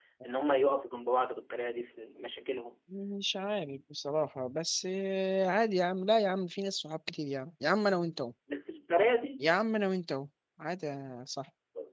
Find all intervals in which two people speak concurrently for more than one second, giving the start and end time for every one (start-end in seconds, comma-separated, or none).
none